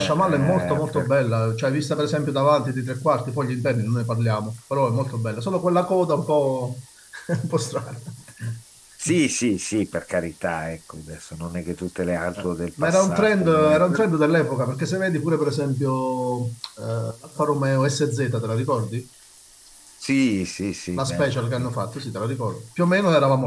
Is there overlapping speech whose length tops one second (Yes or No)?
Yes